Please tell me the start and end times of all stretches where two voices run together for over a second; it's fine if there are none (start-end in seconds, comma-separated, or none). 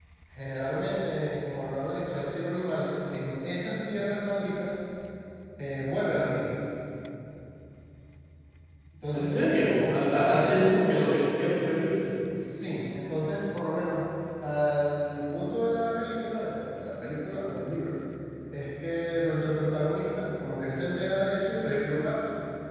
9.1-11.2